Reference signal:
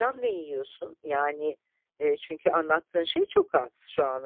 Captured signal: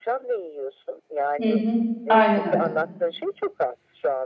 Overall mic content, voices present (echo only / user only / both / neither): both